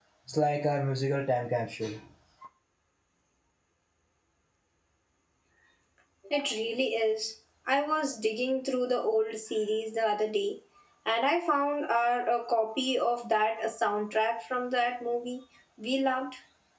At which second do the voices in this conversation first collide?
none

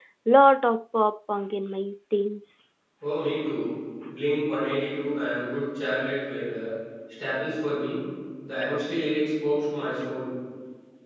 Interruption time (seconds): none

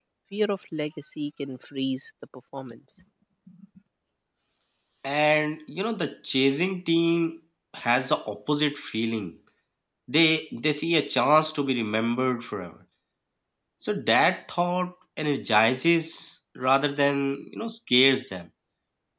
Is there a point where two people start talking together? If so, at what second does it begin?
none

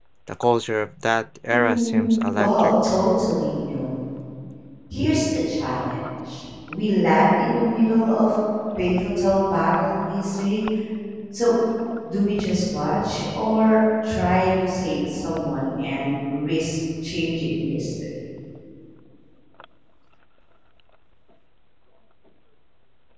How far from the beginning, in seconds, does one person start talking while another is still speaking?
1.5 s

